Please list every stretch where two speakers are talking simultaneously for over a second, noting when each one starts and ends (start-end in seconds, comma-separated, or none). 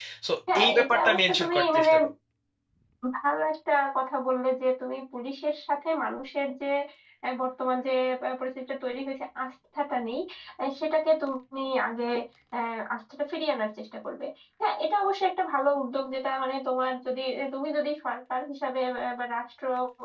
0.6-1.9